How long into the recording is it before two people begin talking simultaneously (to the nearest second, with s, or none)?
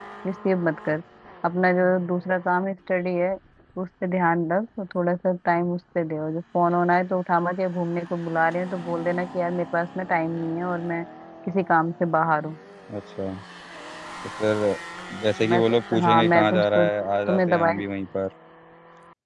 15 s